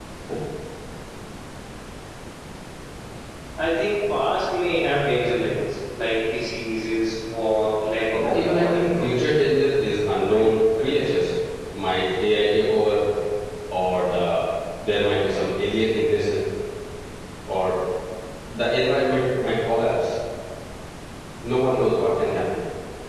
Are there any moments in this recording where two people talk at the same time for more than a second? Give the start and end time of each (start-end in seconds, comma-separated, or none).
8.1-9.5